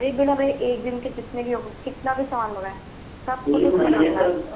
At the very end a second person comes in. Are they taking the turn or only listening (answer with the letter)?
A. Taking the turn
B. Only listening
A